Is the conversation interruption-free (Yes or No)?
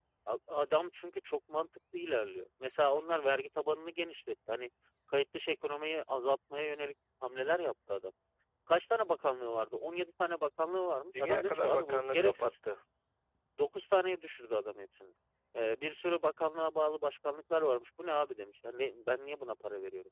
No